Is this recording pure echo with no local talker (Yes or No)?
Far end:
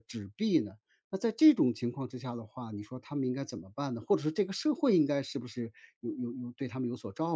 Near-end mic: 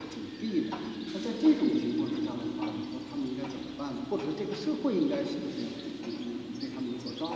Yes